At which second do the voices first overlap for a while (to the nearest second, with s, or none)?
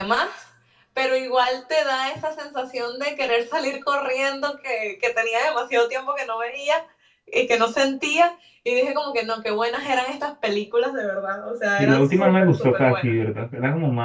12 s